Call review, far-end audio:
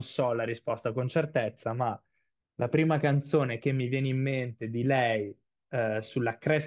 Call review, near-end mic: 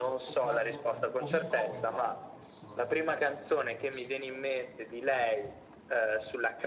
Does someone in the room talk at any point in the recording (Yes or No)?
Yes